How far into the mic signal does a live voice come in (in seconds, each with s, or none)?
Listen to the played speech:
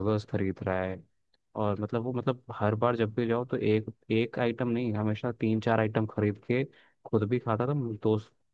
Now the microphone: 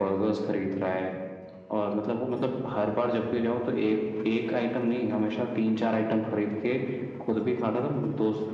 none